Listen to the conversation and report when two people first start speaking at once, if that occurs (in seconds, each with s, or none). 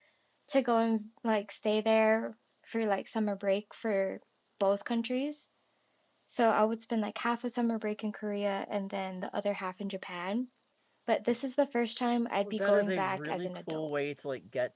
12.4 s